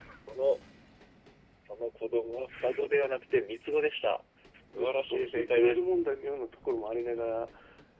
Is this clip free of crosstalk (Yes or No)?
No